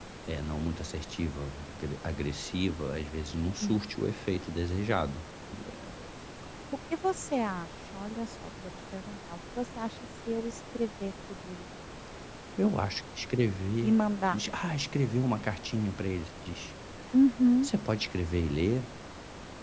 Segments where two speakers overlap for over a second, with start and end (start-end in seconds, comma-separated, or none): none